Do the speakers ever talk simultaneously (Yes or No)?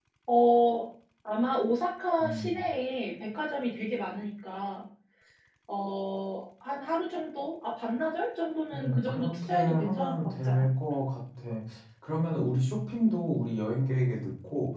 Yes